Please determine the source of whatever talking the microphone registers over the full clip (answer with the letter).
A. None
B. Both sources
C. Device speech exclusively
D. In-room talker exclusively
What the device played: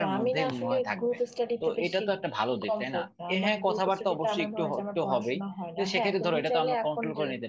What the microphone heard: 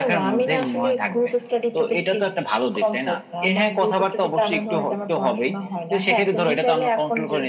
C